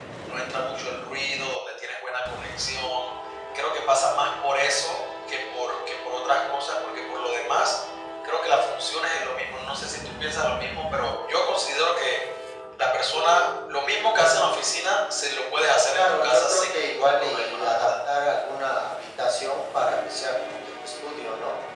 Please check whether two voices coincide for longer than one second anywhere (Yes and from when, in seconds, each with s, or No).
Yes, from 15.9 s